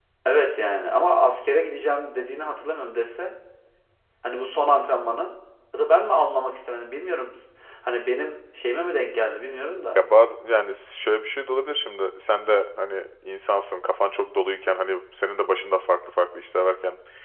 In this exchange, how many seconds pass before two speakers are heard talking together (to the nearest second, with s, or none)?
none